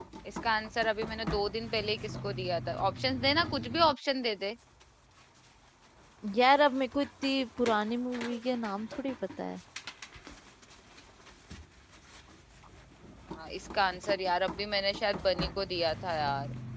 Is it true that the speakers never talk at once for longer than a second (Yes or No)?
Yes